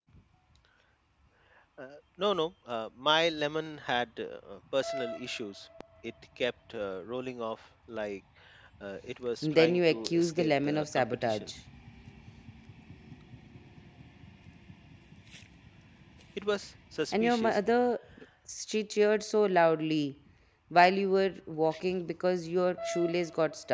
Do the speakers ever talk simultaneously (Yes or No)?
Yes